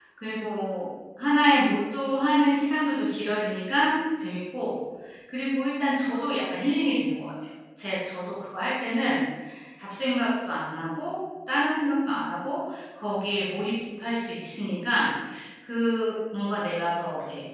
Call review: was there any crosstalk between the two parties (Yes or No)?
No